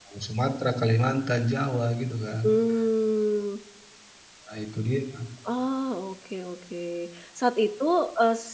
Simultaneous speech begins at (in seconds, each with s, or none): none